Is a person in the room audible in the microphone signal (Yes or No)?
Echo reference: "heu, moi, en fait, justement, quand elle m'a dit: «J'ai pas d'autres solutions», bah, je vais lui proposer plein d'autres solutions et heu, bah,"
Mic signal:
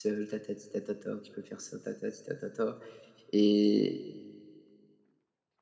Yes